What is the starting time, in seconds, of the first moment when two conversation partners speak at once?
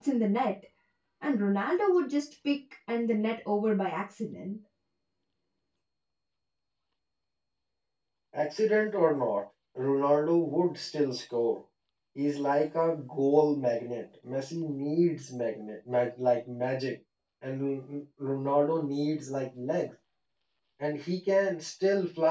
none

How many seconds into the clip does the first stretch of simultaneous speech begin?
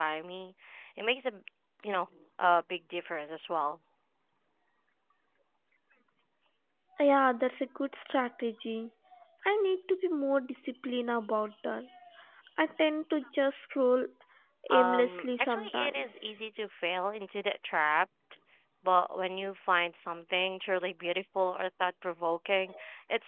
14.7 s

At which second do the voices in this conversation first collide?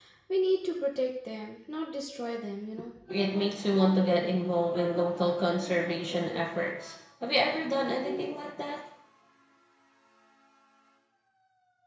none

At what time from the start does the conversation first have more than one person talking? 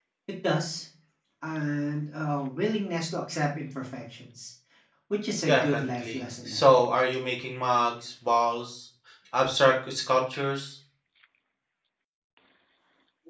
5.5 s

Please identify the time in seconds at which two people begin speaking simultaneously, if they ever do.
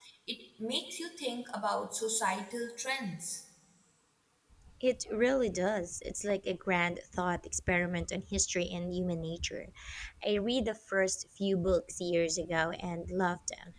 none

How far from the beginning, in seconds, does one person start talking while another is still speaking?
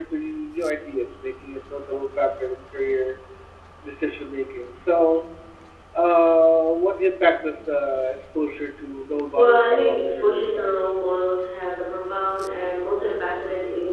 9.3 s

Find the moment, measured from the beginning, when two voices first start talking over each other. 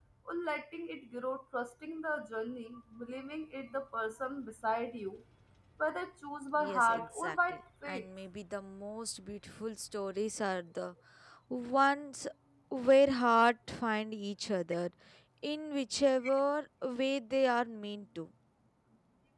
6.6 s

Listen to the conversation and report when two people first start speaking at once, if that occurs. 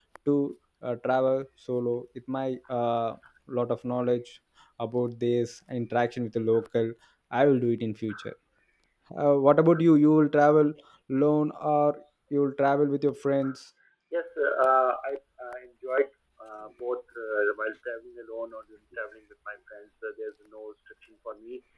none

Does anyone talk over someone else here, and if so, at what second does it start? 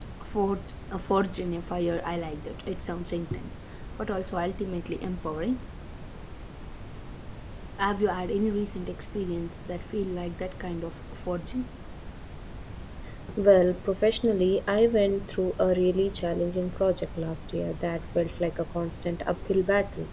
none

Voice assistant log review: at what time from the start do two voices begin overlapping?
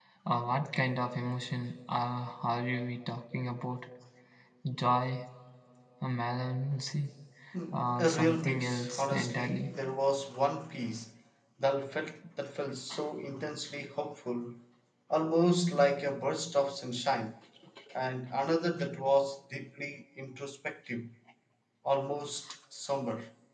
7.7 s

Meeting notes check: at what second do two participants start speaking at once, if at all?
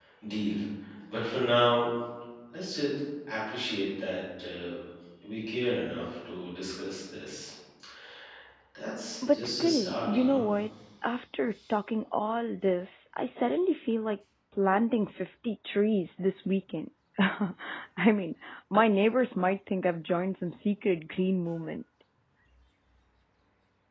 9.2 s

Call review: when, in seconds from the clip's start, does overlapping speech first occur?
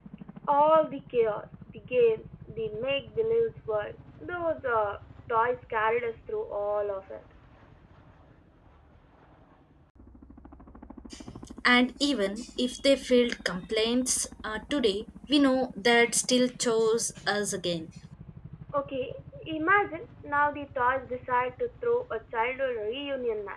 none

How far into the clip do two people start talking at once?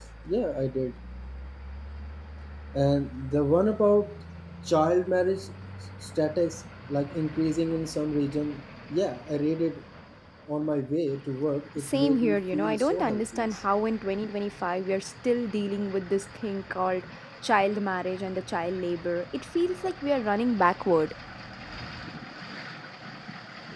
11.8 s

